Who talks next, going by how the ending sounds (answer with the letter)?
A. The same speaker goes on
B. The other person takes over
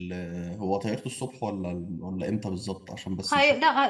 B